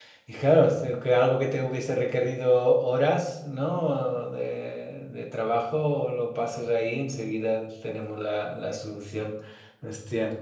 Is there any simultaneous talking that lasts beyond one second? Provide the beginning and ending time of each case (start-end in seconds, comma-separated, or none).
none